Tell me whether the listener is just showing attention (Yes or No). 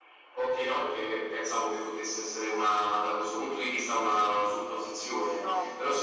Yes